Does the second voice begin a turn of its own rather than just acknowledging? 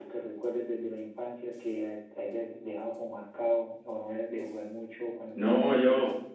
Yes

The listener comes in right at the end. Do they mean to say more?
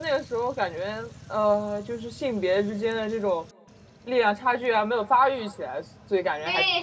Yes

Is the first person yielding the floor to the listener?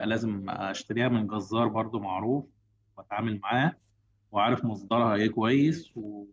No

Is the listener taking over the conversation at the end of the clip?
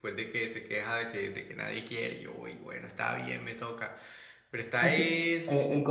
Yes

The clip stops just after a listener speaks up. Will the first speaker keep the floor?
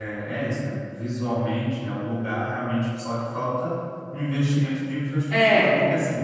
Yes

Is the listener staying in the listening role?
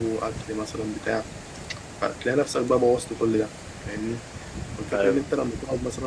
Yes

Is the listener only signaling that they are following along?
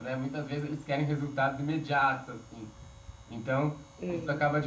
Yes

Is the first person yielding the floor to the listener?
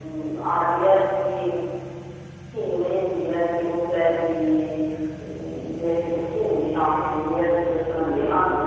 Yes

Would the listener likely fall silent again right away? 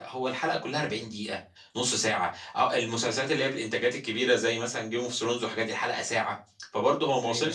Yes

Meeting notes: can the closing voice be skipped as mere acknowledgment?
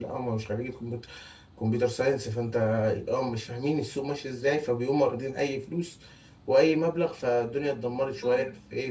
No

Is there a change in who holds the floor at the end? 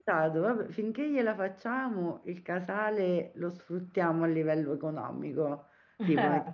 No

